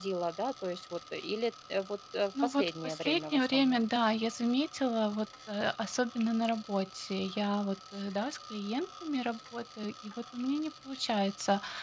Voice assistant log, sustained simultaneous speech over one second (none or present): present